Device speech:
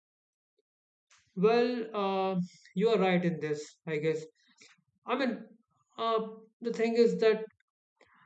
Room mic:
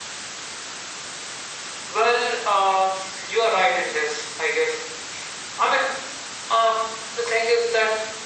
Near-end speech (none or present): none